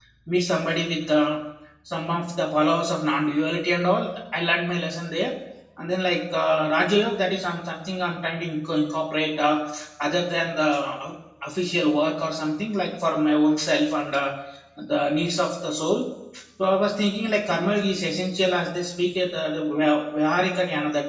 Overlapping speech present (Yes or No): No